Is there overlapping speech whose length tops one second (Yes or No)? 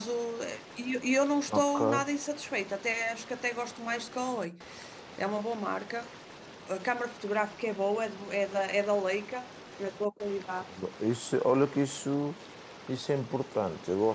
No